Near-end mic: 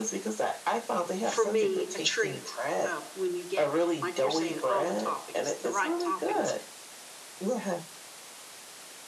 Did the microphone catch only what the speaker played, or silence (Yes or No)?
No